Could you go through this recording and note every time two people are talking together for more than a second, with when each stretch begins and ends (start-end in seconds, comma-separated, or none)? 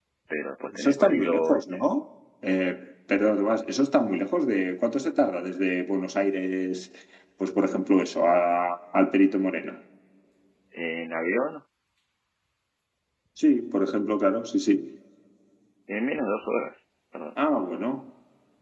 0.6-1.9